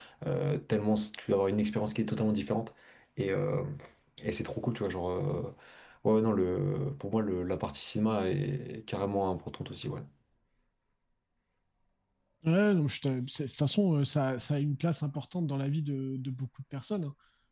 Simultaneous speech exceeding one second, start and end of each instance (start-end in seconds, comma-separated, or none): none